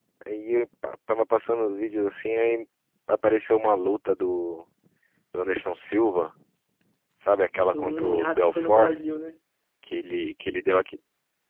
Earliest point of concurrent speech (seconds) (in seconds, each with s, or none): 7.6 s